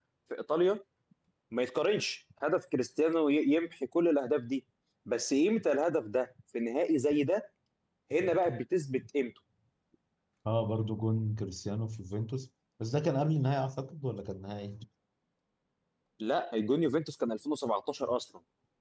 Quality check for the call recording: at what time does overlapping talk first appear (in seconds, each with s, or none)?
none